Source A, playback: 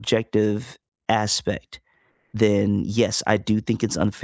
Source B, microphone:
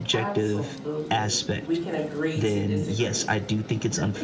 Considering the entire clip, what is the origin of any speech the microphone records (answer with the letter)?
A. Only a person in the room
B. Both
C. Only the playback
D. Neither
B